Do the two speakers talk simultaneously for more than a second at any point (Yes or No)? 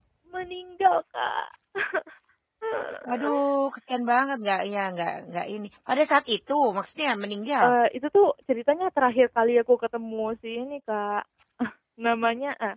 No